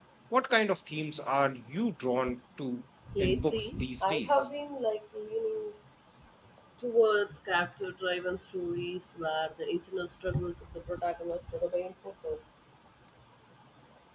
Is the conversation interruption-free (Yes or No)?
No